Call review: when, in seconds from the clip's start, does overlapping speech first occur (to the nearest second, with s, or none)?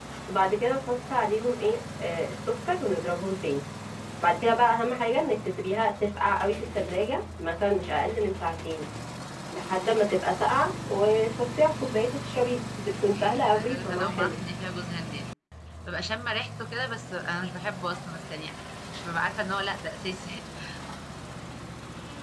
13 s